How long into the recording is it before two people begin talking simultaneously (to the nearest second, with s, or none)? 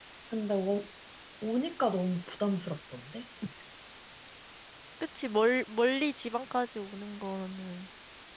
none